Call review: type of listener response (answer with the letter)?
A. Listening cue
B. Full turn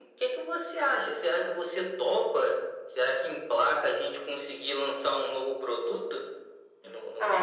B